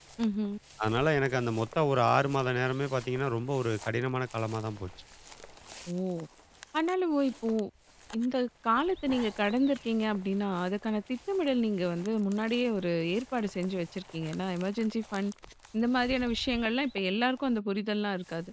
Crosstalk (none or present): none